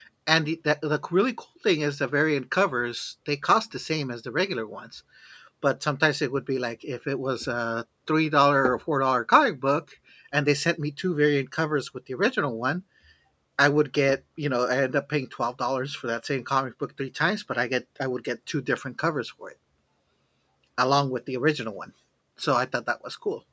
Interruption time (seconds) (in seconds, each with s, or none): none